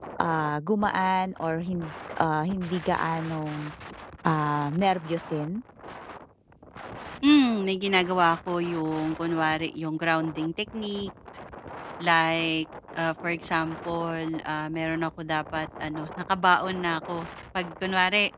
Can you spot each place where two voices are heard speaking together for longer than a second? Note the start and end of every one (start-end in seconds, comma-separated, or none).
none